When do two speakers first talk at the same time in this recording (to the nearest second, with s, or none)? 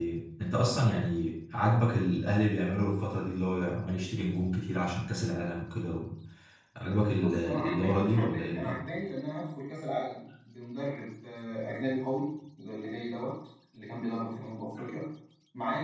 7 s